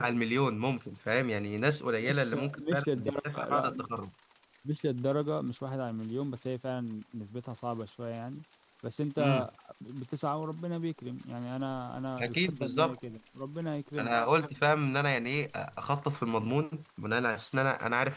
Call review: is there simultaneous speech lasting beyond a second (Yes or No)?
Yes